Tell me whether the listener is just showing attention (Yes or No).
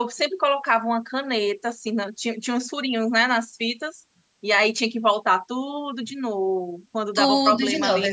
No